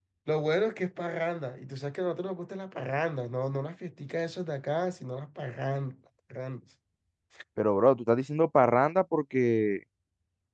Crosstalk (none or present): none